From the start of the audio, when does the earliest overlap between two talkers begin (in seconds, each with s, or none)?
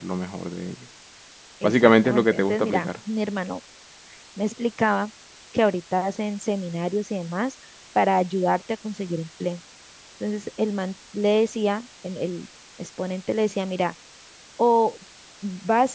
1.6 s